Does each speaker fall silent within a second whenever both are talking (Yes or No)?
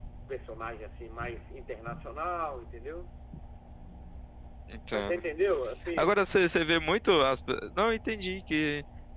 Yes